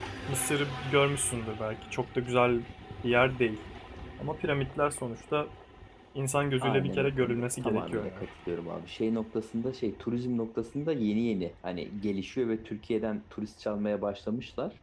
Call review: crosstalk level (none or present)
present